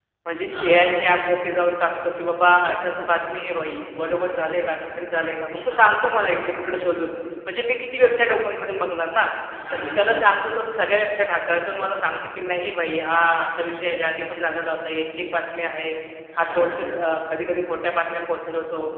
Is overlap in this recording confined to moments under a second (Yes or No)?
No